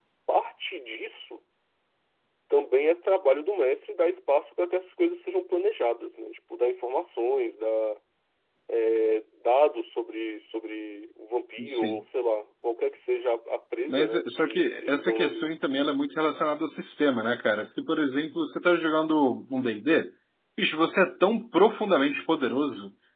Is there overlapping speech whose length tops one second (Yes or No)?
Yes